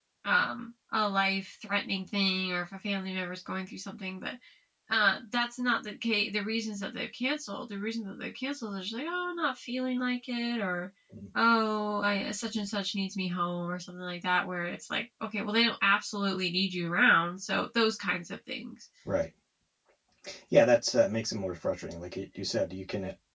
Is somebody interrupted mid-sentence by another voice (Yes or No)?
No